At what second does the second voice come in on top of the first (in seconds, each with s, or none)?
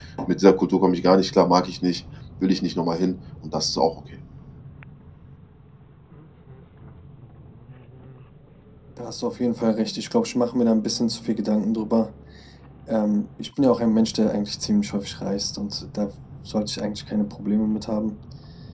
none